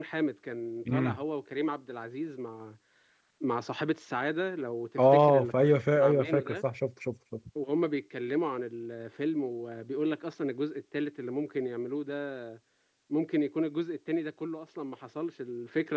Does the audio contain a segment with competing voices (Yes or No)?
Yes